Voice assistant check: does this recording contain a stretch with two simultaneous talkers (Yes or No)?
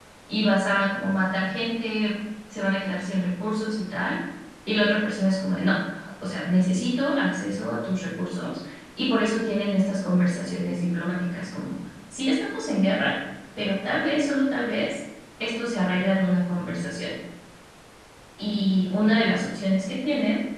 No